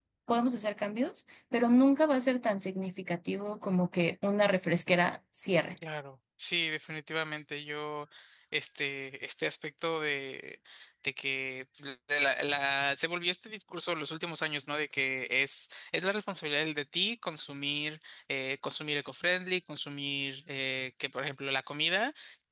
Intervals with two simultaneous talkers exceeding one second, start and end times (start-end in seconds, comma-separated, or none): none